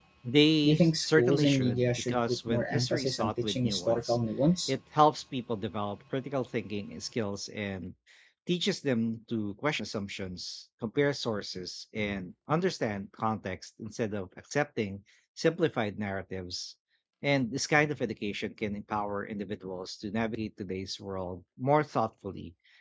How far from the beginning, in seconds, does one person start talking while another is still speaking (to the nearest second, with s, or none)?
1 s